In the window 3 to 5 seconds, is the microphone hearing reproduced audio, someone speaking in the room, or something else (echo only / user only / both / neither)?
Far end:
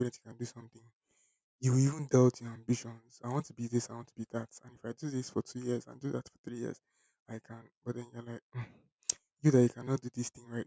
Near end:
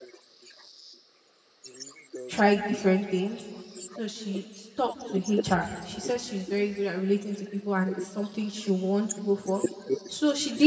both